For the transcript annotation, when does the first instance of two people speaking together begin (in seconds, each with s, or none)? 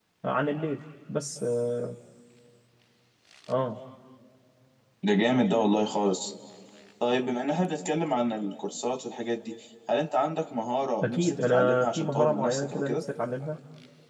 11.0 s